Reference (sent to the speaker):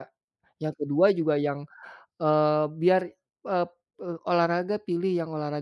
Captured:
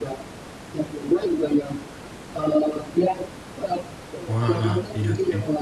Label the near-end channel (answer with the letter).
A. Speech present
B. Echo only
A